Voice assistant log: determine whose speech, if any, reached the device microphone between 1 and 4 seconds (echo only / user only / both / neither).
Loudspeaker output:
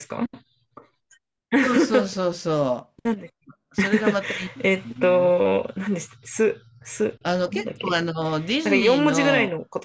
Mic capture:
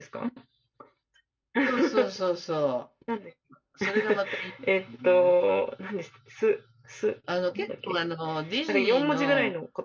echo only